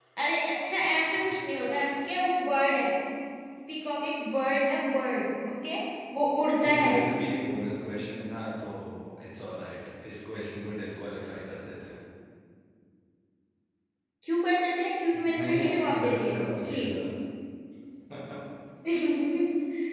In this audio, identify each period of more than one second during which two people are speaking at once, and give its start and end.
15.1-17.0

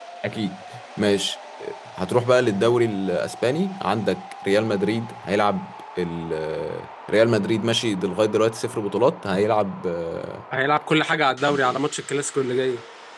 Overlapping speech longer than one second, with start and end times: none

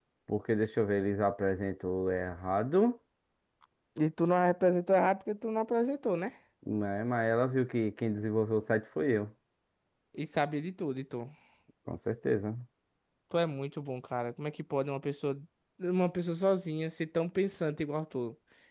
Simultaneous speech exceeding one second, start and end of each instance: none

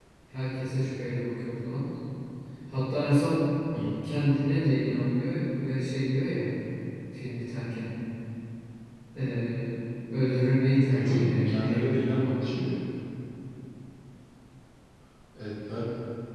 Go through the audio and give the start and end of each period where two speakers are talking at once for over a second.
10.8-12.0

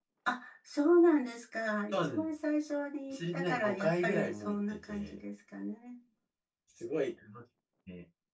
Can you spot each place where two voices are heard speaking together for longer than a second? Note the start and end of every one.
3.1-5.2

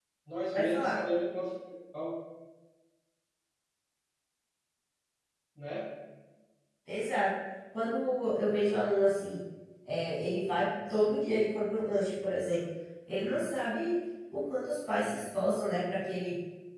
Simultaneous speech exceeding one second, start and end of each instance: none

